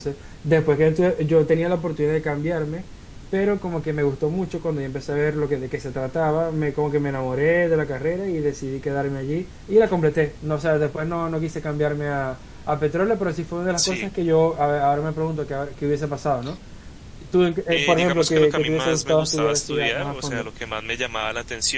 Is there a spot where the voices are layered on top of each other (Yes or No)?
Yes